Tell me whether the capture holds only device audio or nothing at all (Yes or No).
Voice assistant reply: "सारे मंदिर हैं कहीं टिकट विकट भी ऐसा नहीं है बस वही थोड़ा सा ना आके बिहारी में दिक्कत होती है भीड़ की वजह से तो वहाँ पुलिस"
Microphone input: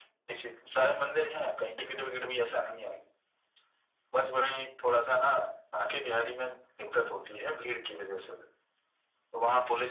Yes